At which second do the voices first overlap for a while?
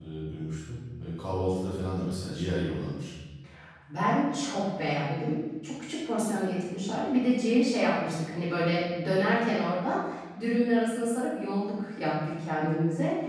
none

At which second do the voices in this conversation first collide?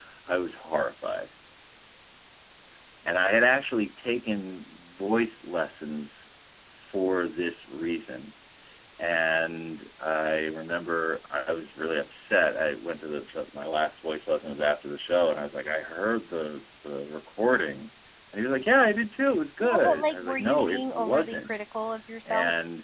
19.6 s

